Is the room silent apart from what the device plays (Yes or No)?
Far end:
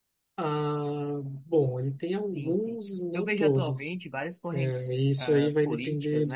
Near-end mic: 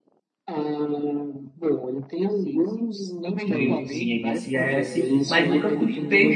No